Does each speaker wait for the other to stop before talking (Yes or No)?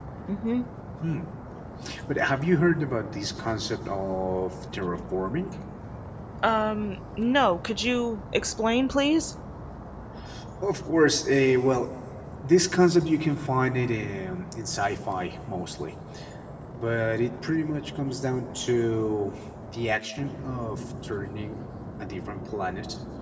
Yes